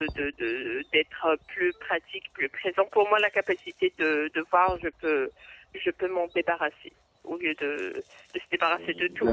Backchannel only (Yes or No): No